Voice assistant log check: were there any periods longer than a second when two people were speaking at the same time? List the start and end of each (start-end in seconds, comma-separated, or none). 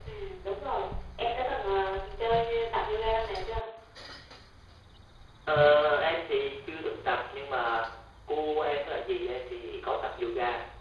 none